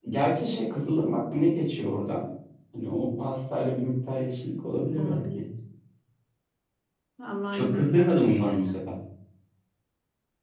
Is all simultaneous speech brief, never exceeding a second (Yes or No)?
No